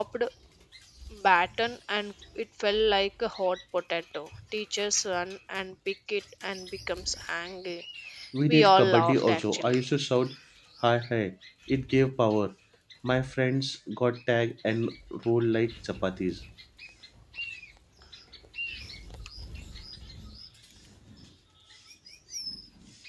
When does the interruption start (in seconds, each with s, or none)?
8.5 s